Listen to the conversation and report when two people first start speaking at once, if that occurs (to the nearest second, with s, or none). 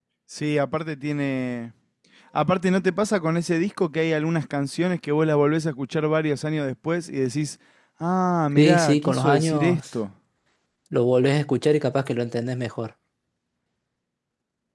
9 s